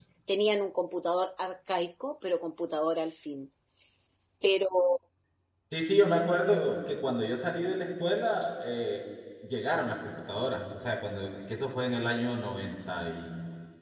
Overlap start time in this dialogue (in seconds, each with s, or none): none